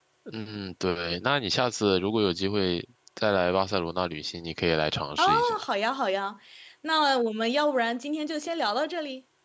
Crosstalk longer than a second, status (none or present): none